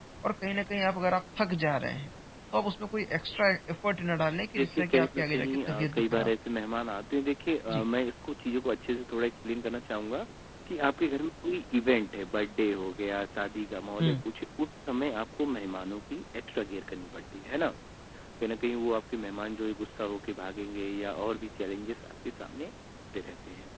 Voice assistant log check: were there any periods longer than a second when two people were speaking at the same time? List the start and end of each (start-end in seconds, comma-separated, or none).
4.6-6.3